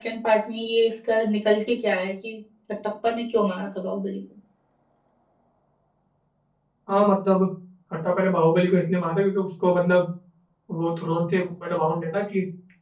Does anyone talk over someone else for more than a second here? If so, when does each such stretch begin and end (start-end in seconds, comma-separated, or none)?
none